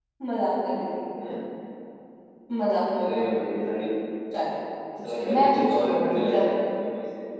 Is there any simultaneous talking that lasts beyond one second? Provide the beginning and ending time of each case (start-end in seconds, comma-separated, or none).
5.0-6.4